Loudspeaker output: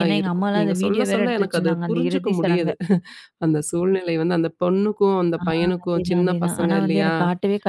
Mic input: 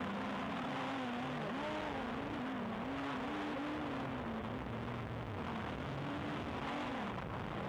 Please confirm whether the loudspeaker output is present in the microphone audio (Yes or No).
No